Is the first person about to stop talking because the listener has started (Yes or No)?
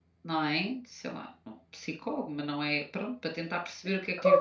Yes